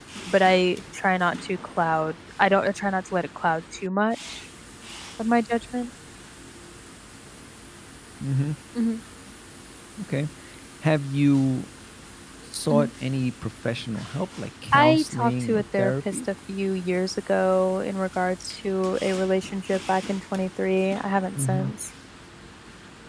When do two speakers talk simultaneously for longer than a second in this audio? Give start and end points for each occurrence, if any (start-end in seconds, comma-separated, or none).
14.7-16.2